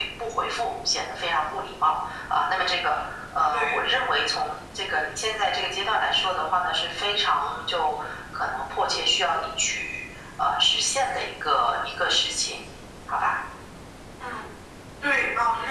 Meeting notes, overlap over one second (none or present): none